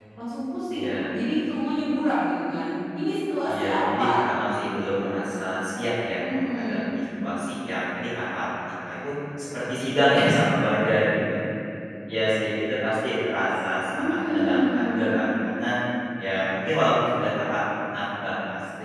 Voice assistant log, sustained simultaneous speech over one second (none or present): present